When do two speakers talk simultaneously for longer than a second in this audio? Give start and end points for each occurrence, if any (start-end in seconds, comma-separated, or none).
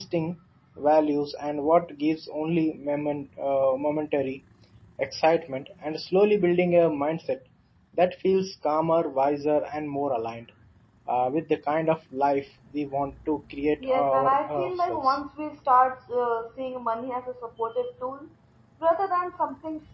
13.8-15.2